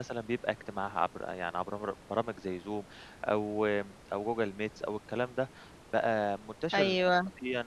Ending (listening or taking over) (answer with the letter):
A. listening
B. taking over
A